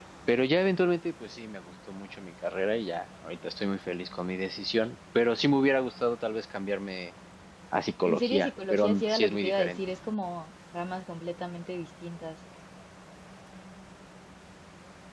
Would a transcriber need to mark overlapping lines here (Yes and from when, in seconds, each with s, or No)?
Yes, from 8.0 s